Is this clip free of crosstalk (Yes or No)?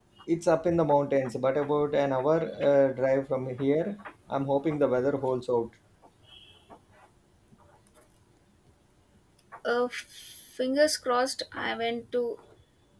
Yes